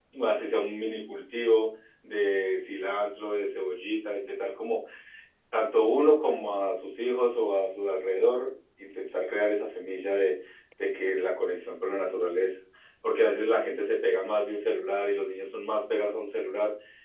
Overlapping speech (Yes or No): No